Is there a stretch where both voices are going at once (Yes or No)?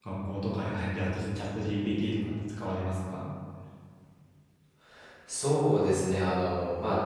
No